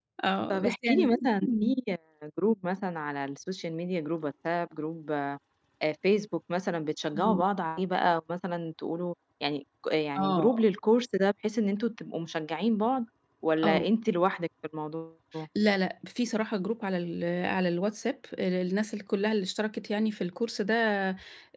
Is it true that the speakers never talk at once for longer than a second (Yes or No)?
No